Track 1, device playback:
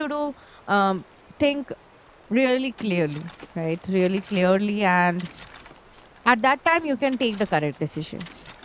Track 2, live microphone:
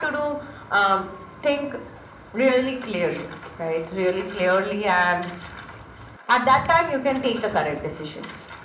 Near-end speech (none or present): none